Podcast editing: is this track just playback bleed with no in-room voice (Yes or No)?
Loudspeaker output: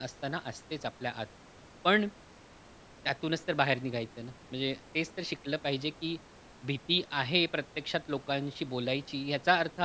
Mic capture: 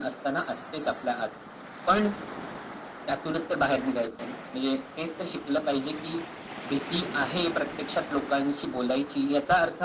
Yes